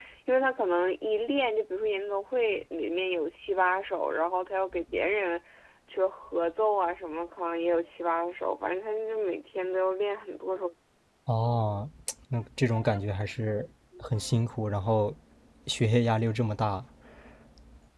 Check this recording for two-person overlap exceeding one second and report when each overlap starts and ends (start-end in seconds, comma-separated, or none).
none